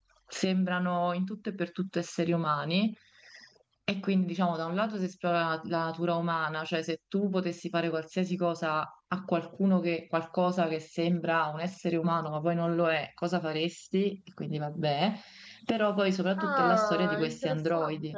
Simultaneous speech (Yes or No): Yes